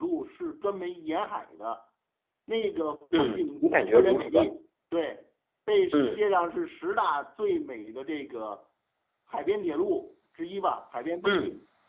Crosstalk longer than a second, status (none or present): present